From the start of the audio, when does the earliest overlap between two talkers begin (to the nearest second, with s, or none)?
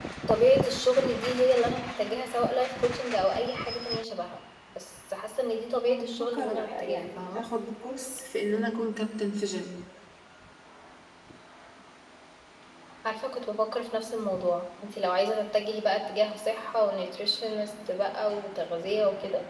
6 s